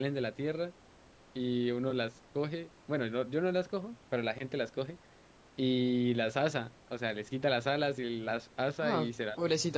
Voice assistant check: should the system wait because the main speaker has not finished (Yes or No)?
No